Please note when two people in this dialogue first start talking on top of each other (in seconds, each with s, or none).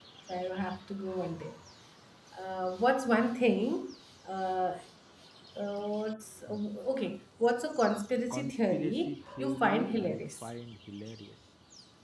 8.2 s